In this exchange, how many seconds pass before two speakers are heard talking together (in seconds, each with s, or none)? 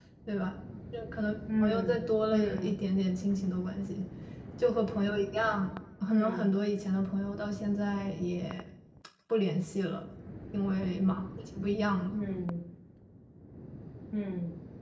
1.6 s